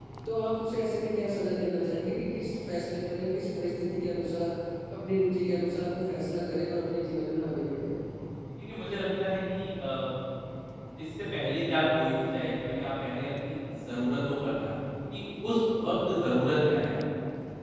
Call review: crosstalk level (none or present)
none